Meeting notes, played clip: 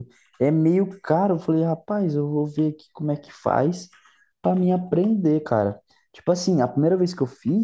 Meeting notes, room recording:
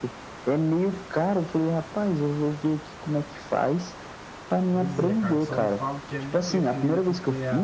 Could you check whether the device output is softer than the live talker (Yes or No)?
No